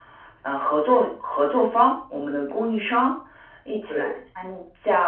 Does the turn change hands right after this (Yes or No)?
No